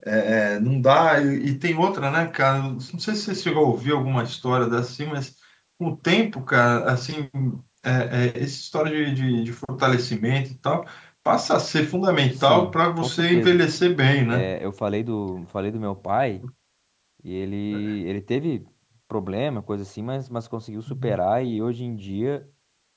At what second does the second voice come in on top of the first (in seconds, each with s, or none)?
12.4 s